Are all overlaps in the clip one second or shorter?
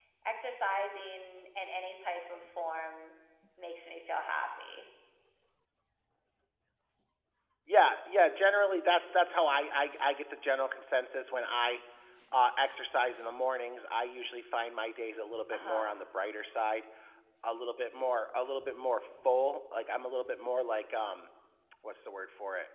Yes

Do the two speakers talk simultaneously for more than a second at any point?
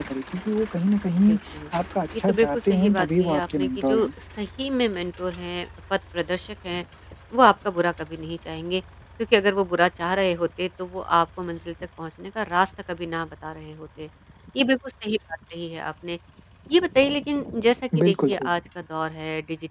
Yes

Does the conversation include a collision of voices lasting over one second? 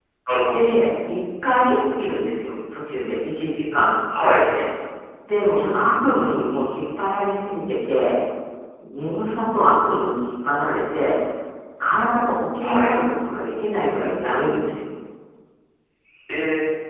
No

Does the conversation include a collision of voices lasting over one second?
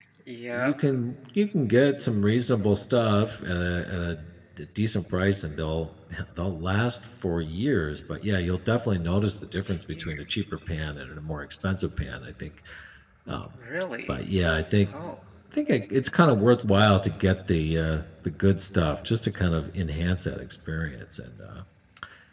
No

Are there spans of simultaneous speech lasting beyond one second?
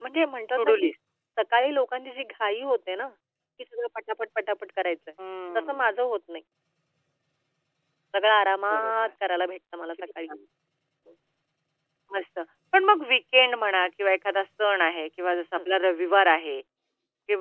No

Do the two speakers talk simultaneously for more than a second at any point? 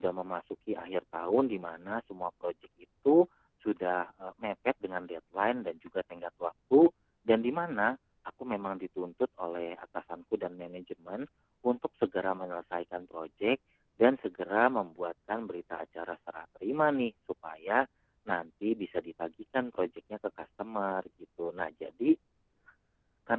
No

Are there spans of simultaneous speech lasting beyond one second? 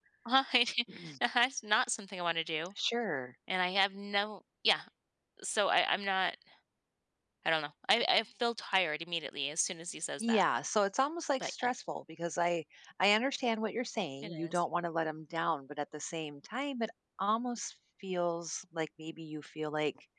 No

